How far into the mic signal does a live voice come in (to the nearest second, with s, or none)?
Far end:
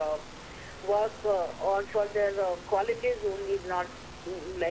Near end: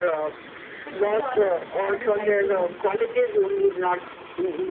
1 s